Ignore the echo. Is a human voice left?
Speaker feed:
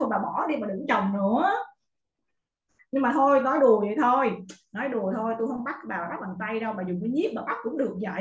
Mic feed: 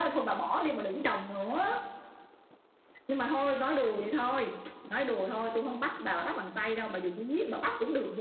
No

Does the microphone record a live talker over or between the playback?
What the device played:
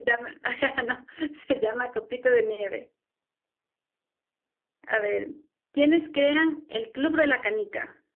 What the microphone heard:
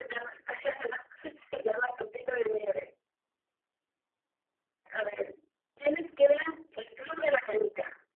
No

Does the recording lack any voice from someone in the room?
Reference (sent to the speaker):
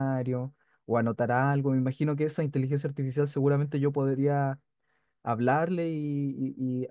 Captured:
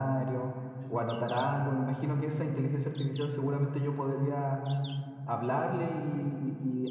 Yes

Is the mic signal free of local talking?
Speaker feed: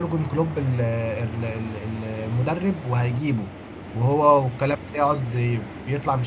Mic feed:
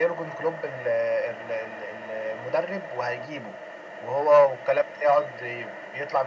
Yes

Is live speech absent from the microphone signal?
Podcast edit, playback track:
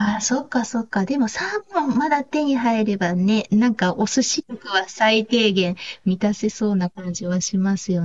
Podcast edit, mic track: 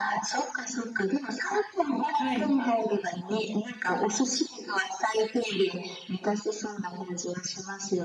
No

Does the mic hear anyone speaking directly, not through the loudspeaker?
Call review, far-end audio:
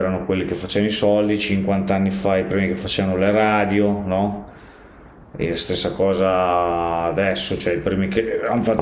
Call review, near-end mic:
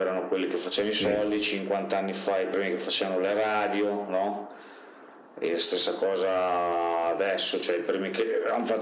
Yes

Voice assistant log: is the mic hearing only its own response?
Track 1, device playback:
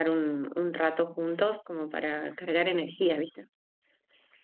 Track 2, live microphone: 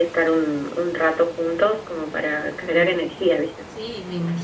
No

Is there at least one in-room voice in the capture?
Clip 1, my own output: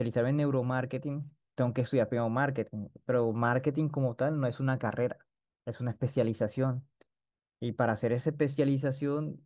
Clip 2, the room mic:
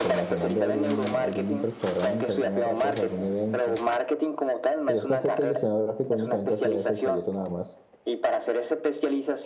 Yes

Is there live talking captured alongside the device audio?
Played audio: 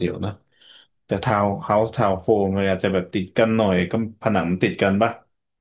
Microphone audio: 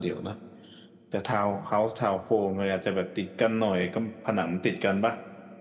No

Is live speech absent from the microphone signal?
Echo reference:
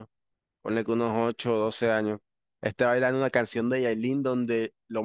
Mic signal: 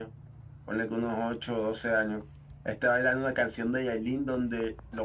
Yes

